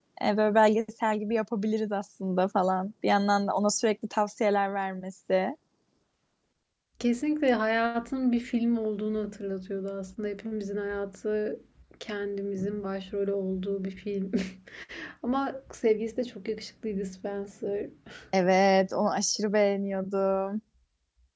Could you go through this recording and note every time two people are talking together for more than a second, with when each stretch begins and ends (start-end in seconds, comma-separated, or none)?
none